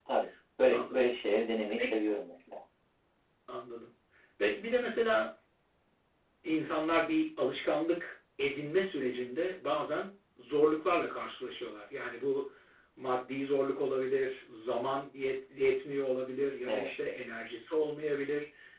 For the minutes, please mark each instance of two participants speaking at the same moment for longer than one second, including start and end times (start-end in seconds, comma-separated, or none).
none